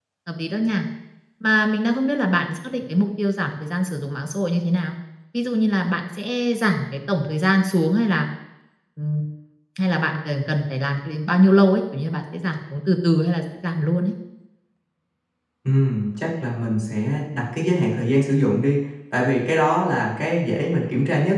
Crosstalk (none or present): none